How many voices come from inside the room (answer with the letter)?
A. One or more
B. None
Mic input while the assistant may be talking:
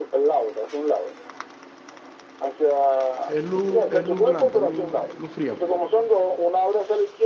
A